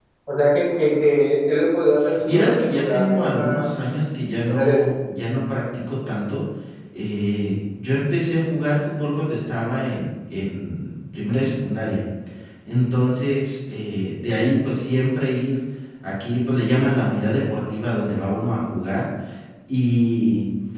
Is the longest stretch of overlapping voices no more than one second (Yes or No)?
No